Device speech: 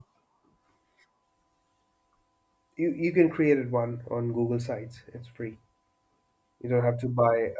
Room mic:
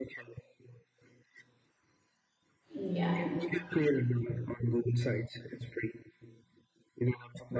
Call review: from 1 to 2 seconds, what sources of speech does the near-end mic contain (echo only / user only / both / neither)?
neither